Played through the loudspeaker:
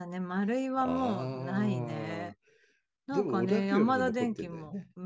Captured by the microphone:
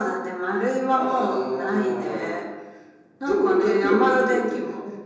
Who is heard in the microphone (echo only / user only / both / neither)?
echo only